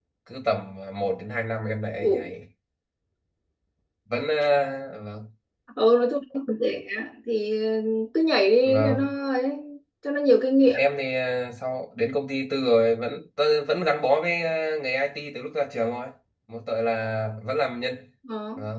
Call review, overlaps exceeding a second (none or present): none